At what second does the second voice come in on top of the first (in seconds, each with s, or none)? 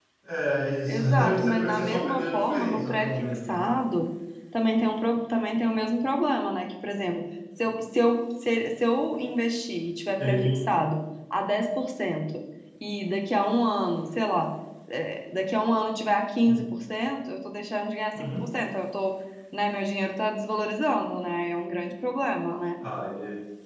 0.9 s